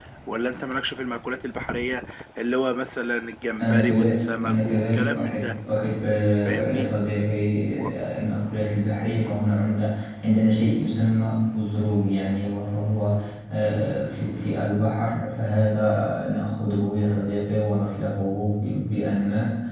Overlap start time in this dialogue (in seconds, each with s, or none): 3.6 s